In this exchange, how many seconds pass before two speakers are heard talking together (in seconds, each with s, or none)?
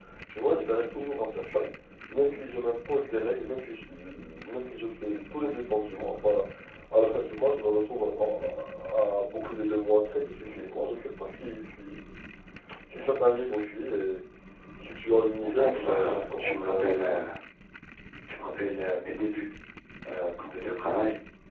15.4 s